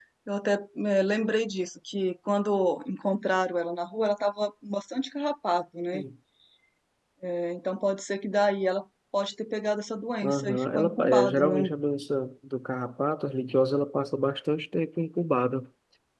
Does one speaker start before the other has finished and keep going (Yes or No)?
Yes